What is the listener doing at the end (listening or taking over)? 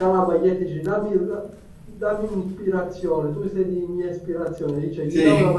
listening